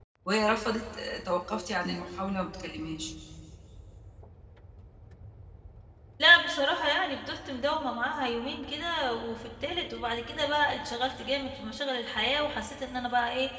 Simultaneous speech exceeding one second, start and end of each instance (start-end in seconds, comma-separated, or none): none